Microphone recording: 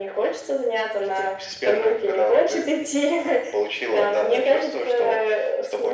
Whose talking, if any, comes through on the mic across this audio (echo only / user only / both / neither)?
echo only